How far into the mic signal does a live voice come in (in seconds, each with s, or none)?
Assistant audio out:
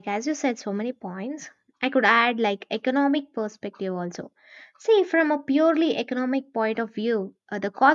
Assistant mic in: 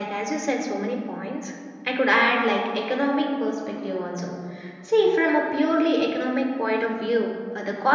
none